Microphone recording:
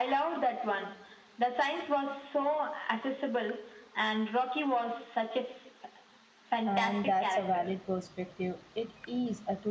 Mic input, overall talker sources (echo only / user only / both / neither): both